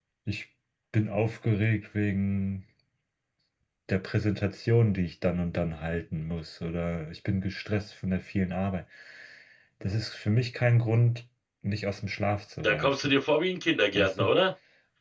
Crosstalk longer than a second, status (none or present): none